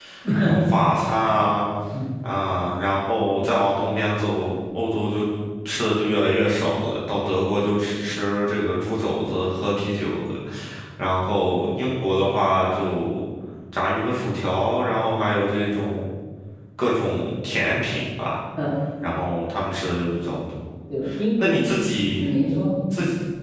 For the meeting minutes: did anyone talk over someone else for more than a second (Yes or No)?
No